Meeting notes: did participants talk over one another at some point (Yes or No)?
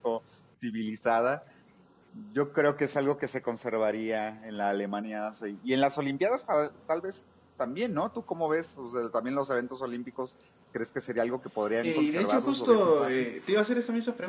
Yes